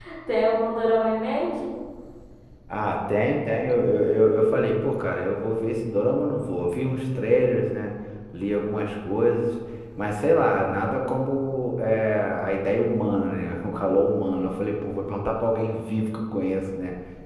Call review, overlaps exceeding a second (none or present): none